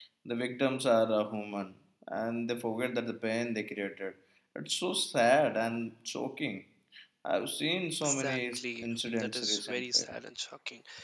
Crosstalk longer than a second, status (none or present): present